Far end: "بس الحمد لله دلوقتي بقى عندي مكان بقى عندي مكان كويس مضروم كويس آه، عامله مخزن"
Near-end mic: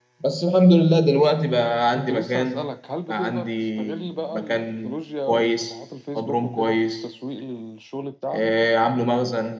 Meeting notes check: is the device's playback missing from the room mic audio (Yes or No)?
No